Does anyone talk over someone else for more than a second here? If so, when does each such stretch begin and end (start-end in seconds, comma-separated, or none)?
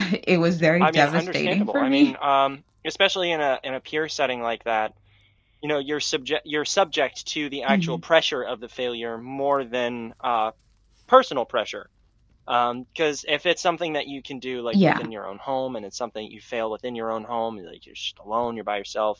0.8-2.1